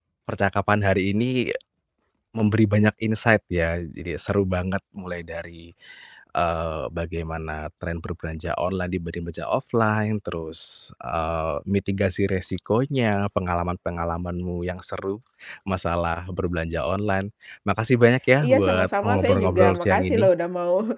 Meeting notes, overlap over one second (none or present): present